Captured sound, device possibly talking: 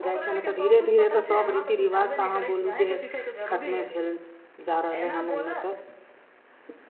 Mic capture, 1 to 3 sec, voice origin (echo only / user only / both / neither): both